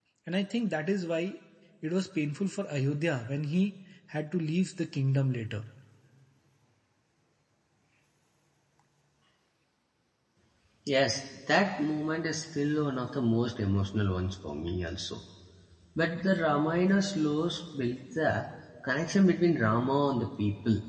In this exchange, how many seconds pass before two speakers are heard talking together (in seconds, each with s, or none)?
none